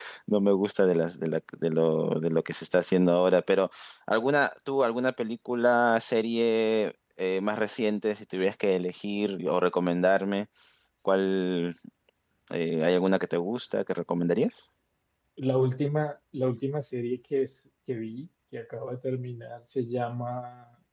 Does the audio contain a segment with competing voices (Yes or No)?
No